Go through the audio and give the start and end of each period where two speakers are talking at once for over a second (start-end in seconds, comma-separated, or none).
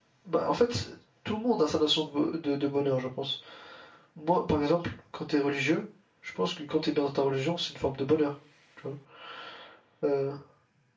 none